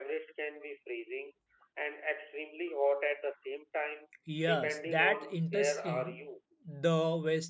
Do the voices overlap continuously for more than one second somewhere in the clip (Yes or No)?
Yes